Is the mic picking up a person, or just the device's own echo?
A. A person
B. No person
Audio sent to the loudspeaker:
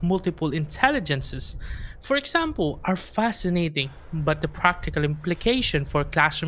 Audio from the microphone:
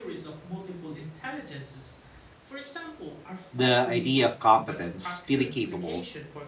A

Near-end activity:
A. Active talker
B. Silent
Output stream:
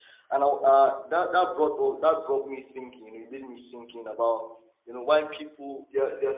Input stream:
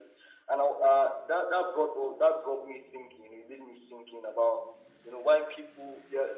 B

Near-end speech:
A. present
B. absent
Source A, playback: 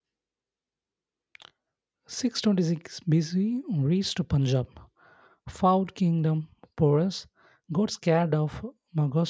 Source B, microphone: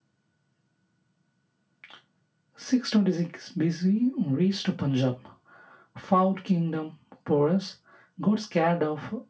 B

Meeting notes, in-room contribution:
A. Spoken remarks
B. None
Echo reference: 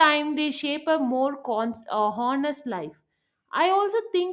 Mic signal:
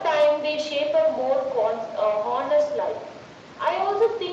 B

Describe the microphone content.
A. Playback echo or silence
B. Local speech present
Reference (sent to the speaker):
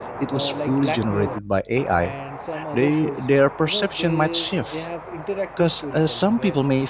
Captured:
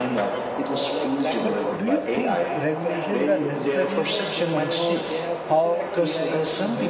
B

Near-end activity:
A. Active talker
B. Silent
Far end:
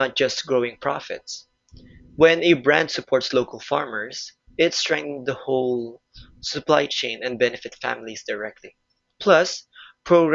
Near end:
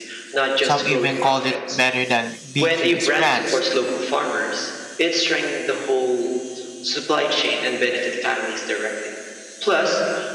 A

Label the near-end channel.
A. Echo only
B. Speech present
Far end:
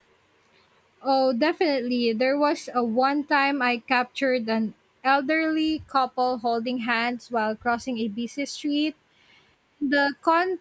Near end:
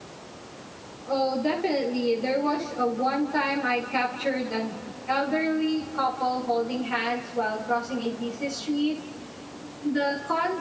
A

